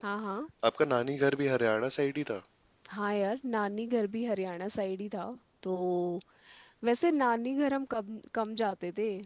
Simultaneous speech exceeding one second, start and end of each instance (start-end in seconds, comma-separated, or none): none